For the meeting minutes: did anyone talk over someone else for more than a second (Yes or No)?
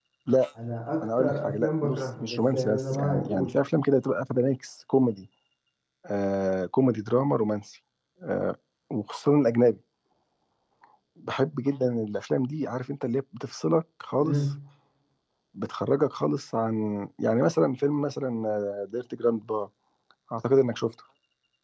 Yes